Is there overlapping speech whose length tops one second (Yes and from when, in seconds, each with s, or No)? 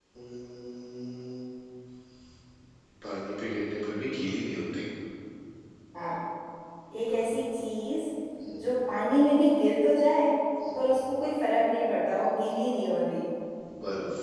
No